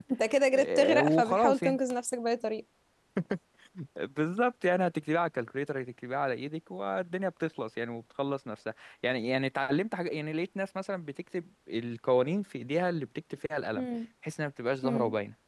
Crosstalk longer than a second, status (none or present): present